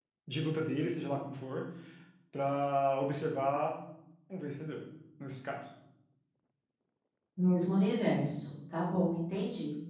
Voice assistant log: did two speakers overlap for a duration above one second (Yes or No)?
No